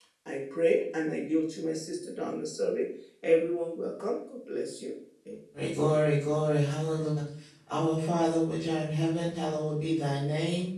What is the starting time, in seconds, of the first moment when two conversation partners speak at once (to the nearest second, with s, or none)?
none